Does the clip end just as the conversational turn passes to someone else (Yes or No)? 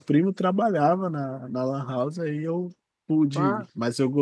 No